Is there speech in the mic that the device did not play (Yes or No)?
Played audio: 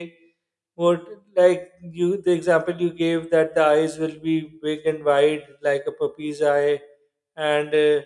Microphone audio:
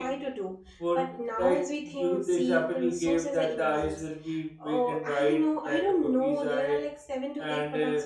Yes